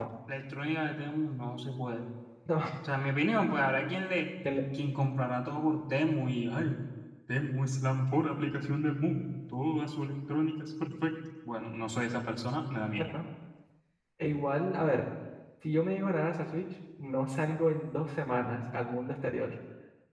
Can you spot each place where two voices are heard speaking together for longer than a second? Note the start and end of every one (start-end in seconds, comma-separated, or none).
none